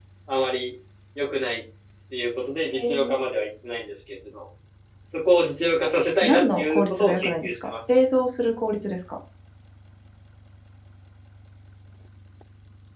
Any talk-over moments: Yes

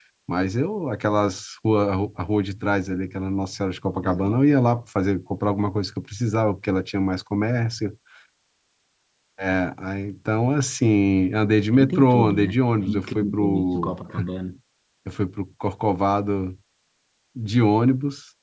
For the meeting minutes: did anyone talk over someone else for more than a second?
Yes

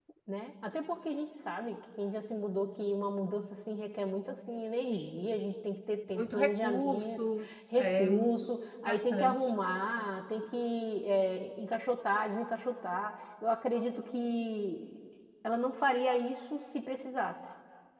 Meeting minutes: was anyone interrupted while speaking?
Yes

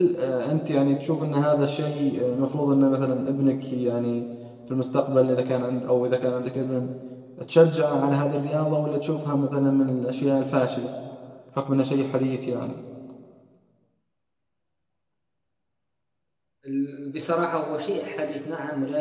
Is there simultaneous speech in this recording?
No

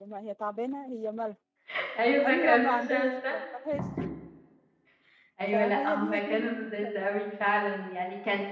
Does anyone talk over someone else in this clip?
Yes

